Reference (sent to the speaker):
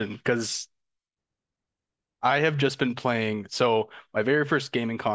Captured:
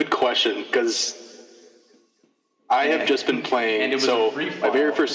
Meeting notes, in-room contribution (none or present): present